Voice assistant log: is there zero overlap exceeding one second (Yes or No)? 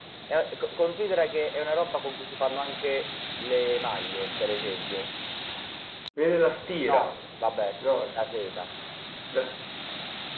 Yes